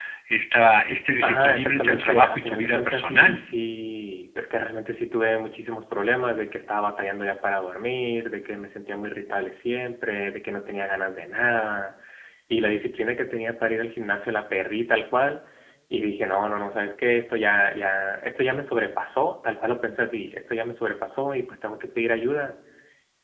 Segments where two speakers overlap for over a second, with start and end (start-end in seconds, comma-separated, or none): 1.2-3.4